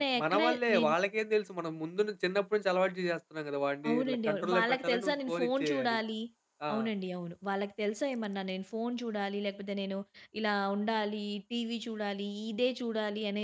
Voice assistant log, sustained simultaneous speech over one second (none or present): present